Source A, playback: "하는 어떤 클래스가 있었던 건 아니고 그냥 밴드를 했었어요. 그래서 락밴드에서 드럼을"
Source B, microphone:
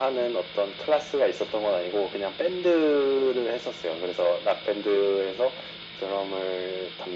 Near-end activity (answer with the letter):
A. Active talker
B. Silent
B